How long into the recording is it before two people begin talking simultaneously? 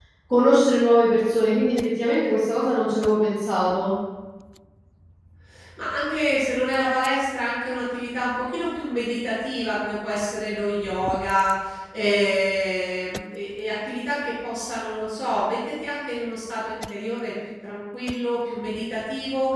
none

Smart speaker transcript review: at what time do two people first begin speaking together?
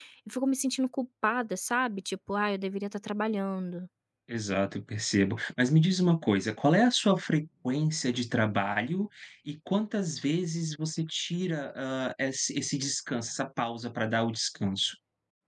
none

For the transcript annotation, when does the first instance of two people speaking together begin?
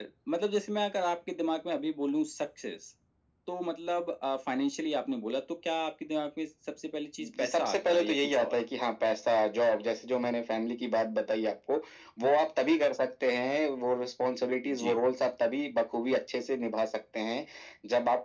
7.2 s

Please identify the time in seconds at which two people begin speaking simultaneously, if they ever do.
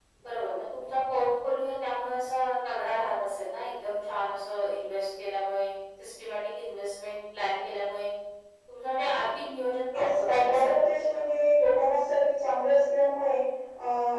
9.9 s

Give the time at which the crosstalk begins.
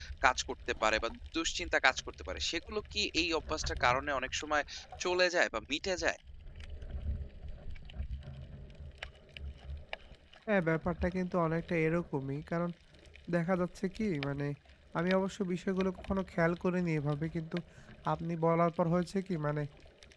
none

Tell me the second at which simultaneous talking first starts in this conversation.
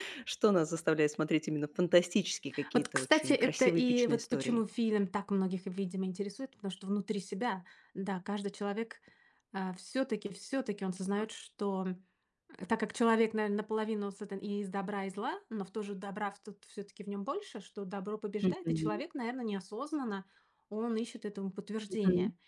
2.7 s

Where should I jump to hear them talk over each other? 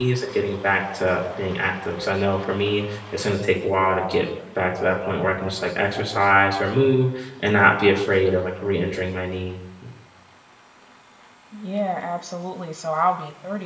none

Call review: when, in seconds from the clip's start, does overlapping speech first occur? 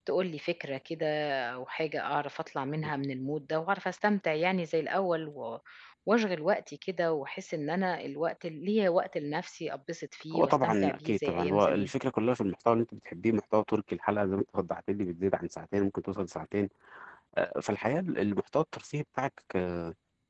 10.3 s

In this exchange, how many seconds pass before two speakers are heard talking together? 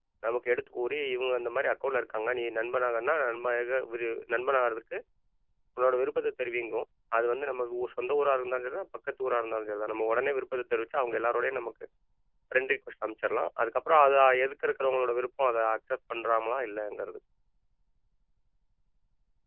none

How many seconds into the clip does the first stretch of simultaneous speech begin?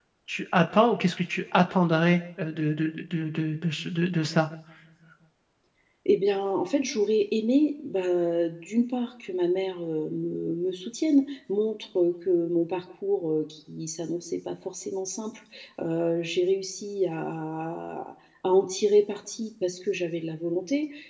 none

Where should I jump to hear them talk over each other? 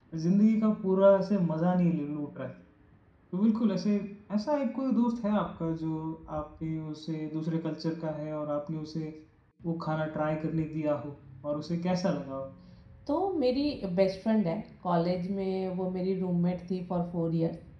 none

